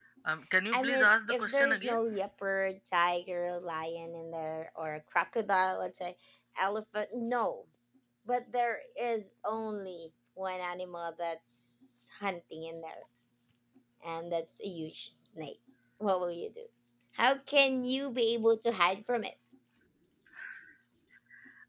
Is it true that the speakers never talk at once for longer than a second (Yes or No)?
No